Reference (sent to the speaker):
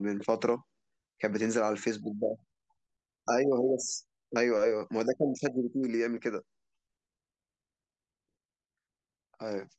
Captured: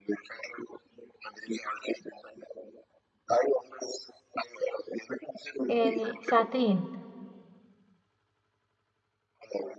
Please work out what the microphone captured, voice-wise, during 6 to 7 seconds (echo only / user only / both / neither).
both